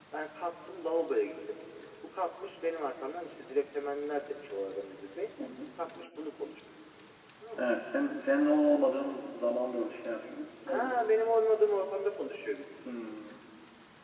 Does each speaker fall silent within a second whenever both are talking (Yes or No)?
Yes